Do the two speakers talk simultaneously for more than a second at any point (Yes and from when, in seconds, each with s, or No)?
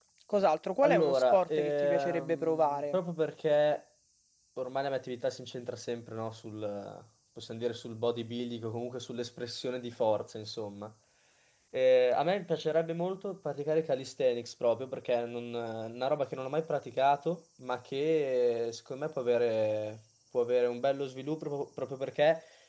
Yes, from 0.8 s